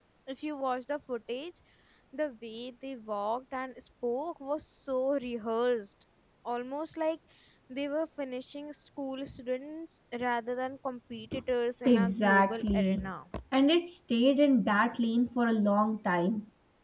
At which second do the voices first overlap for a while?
12 s

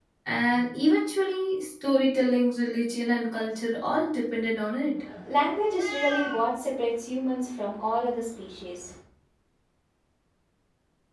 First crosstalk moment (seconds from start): none

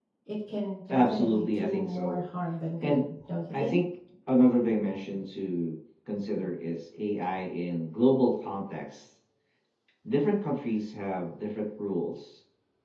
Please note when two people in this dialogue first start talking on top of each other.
1 s

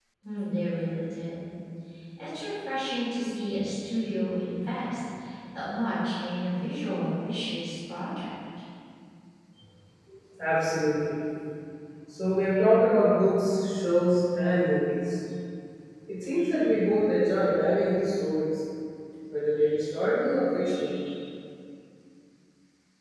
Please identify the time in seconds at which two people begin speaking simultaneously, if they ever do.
none

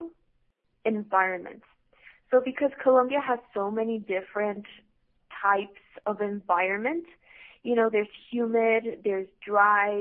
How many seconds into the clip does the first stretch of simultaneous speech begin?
none

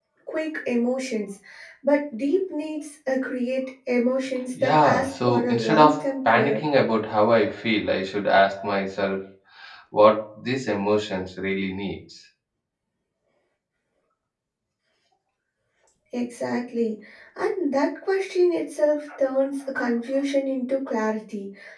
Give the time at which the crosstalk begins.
5 s

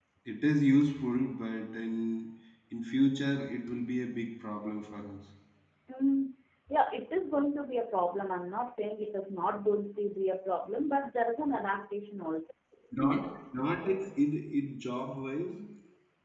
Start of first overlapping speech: none

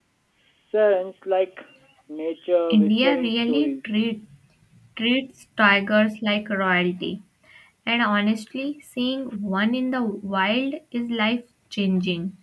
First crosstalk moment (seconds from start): 3 s

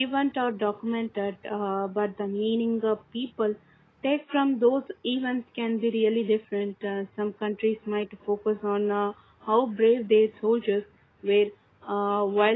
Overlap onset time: none

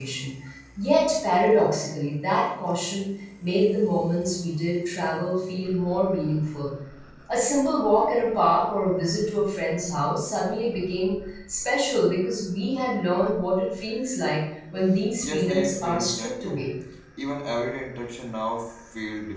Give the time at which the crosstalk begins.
15 s

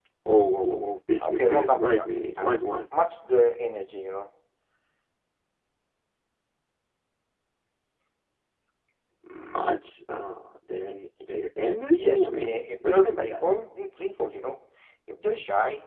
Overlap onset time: 1 s

